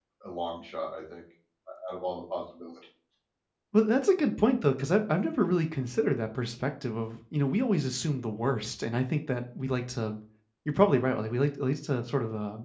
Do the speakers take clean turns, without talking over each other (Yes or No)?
Yes